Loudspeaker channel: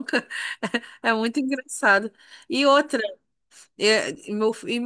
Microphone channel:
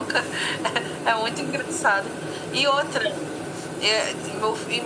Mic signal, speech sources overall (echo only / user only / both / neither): echo only